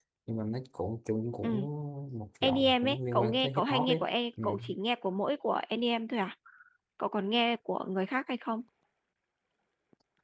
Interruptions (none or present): present